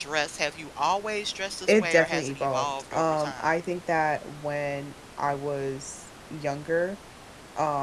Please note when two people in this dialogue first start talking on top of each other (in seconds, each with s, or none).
1.7 s